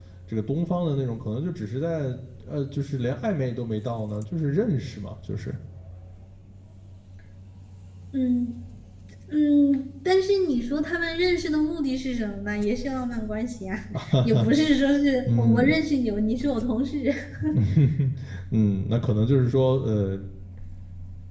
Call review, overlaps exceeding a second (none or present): none